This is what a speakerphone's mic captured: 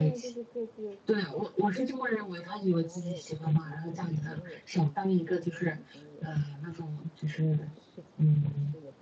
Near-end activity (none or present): present